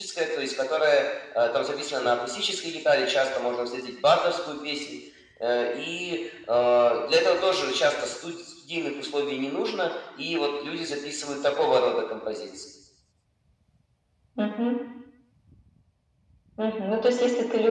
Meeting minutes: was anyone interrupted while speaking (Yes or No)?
No